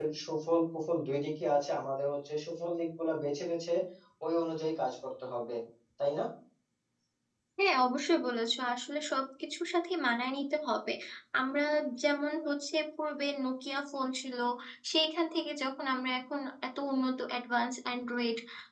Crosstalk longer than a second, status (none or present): none